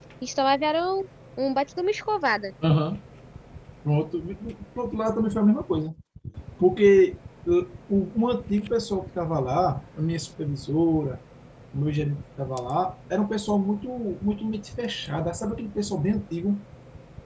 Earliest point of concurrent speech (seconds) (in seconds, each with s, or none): none